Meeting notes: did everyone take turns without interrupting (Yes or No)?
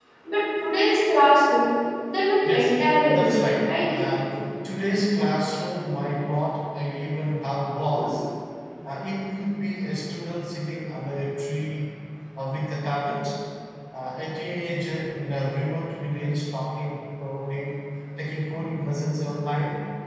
No